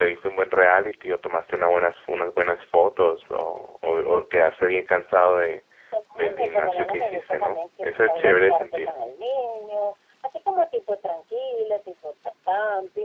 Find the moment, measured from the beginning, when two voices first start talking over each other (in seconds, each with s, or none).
6.2 s